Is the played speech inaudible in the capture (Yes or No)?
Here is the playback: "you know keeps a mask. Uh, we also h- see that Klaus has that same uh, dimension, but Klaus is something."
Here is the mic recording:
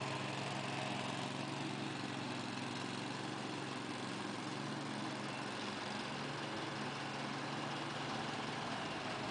Yes